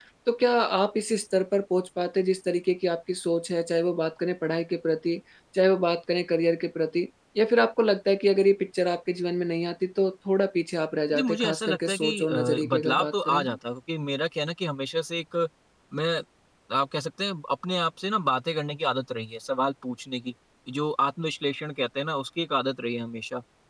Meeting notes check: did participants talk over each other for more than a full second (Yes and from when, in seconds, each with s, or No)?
Yes, from 11.1 s